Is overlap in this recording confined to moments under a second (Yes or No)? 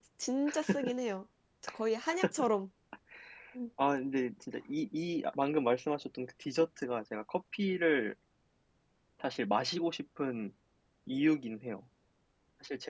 Yes